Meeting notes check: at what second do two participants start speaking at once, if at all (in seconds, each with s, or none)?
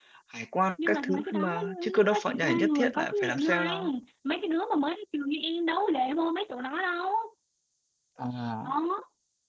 0.8 s